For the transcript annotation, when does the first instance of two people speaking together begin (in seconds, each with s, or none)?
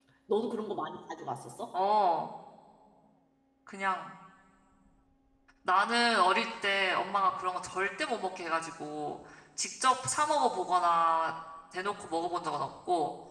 none